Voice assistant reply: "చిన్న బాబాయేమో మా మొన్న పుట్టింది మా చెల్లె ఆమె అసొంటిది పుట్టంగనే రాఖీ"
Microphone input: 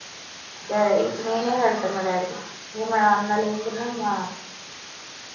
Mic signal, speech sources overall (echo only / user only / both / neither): user only